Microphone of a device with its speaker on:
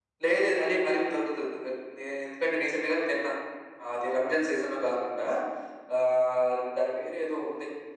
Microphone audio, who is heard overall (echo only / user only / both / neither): echo only